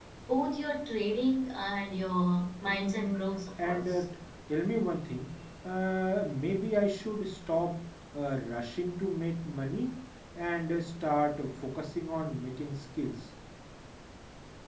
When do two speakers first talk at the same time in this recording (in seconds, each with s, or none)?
2.6 s